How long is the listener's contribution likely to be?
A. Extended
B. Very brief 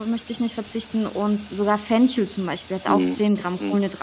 B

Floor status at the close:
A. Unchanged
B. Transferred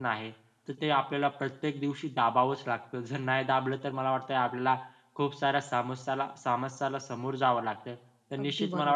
A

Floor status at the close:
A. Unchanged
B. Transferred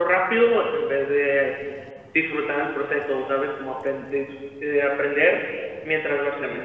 B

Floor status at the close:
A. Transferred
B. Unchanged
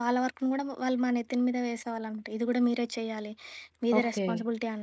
B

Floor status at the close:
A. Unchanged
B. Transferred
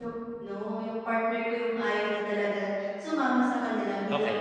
A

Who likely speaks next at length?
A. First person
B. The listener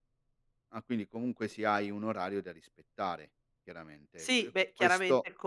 B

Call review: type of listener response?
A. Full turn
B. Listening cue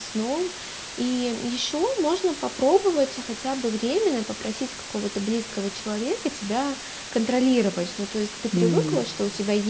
B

